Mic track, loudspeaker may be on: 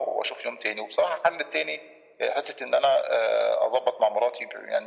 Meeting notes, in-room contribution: none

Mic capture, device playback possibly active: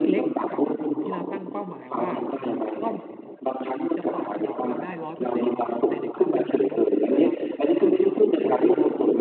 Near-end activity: present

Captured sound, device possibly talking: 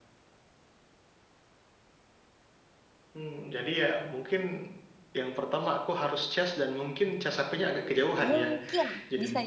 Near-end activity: present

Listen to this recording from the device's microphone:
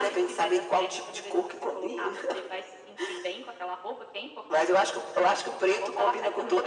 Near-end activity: none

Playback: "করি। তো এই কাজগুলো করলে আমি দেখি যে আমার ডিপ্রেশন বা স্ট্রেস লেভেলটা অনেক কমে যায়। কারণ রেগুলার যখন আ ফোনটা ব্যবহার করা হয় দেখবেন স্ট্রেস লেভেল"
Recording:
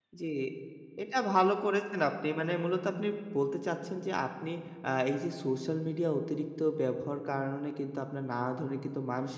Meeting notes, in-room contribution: present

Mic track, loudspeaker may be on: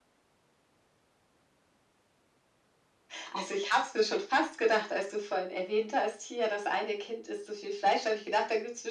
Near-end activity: none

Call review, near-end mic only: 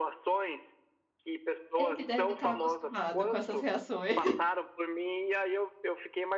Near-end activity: present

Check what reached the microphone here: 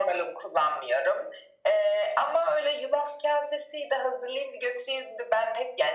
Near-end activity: none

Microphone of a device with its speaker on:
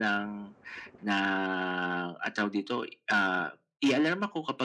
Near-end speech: none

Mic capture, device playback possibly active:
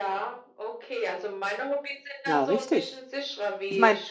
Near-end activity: present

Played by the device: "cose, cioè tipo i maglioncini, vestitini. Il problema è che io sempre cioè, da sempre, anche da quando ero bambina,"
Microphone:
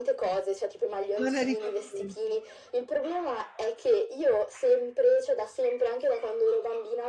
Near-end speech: present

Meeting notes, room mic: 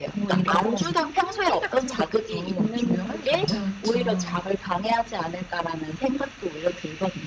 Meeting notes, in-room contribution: present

